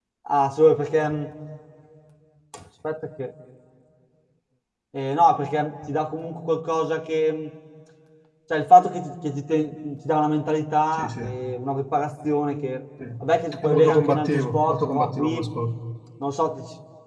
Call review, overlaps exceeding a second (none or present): present